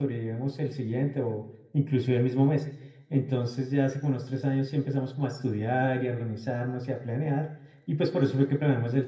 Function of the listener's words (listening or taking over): listening